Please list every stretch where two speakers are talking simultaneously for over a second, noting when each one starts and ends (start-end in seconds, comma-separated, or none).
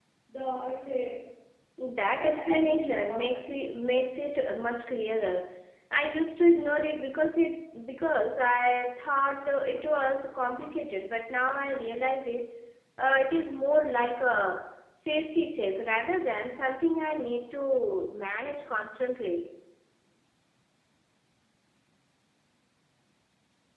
2.1-3.4